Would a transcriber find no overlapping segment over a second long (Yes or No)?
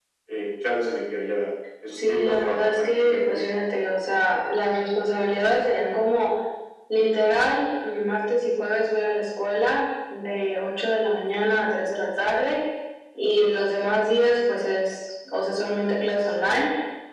No